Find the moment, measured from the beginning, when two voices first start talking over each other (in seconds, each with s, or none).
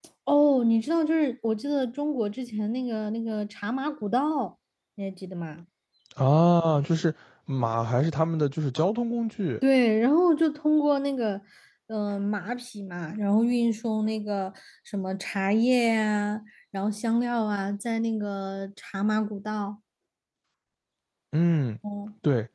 none